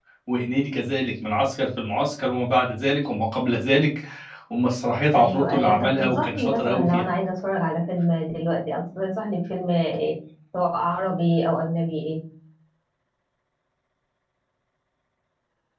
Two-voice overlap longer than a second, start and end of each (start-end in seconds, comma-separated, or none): 5.1-7.1